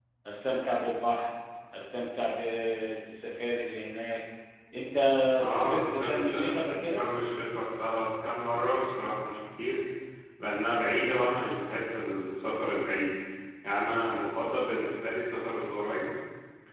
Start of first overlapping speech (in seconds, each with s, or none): 5.5 s